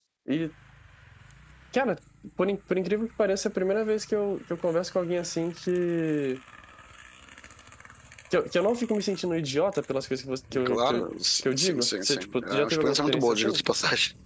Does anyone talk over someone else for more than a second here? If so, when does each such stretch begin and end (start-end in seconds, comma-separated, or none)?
11.4-13.6